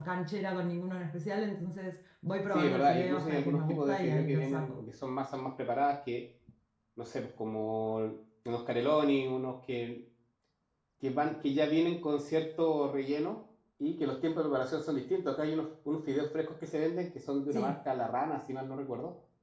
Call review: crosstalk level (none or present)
present